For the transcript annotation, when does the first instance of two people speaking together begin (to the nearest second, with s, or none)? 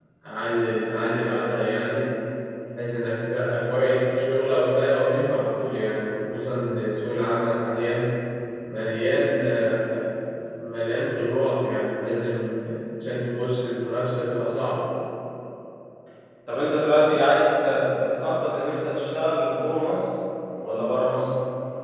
none